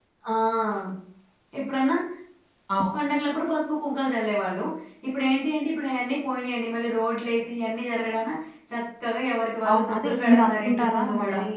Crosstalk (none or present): present